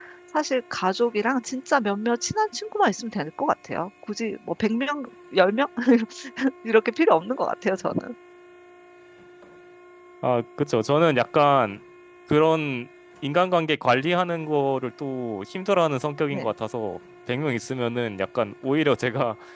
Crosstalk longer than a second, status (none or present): none